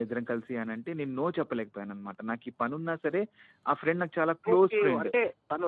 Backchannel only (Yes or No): No